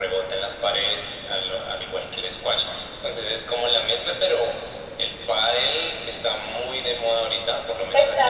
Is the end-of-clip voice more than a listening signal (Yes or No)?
Yes